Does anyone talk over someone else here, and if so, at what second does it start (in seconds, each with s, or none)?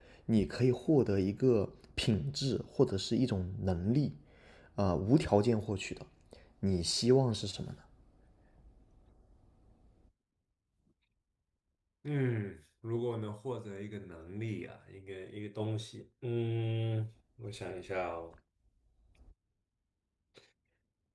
none